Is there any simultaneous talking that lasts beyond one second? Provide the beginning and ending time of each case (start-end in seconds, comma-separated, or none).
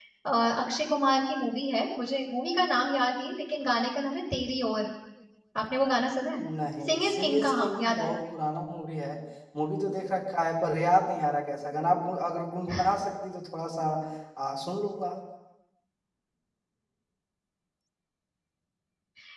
6.9-8.2